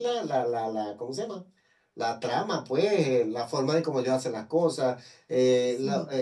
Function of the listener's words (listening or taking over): listening